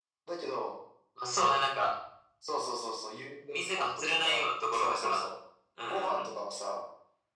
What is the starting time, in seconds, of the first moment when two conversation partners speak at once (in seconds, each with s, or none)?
3.5 s